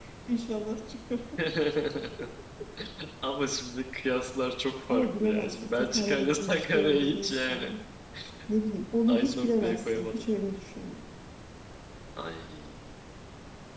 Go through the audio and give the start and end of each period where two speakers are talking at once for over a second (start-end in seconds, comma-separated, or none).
4.9-7.7, 9.1-10.3